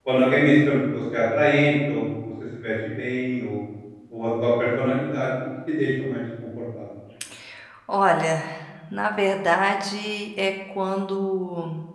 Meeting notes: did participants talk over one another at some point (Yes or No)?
No